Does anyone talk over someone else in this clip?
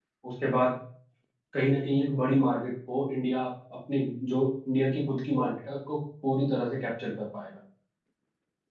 No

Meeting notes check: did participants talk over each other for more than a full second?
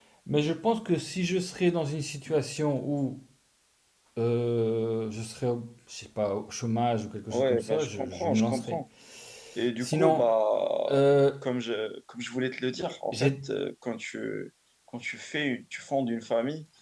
Yes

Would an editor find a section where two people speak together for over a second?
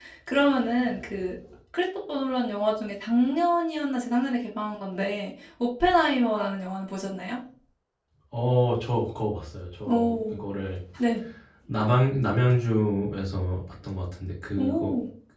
No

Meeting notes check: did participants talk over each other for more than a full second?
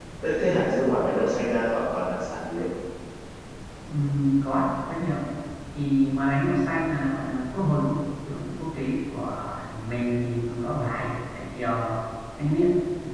No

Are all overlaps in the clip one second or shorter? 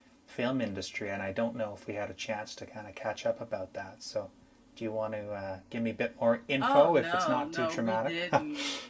No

